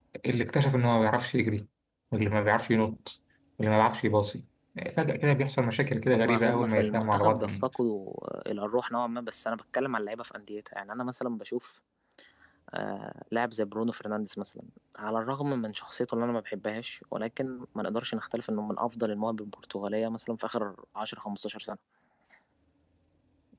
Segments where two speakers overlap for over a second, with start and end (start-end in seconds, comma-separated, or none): 6.1-7.7